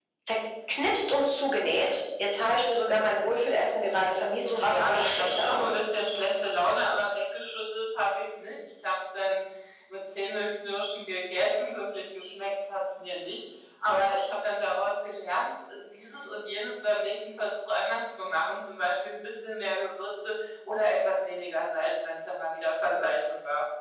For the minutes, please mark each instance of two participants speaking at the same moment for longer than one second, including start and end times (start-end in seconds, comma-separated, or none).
4.4-5.7